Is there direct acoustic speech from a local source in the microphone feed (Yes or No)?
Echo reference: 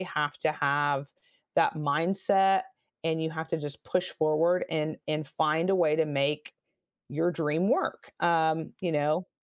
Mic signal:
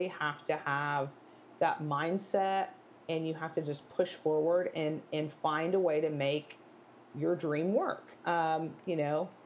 No